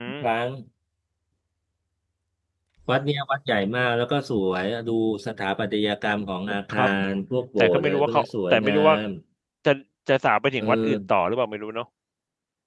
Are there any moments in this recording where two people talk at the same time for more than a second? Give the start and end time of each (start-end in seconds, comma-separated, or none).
7.6-8.9